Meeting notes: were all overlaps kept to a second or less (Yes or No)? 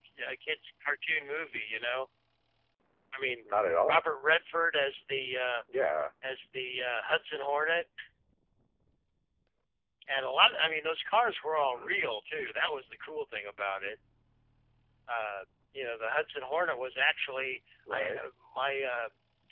Yes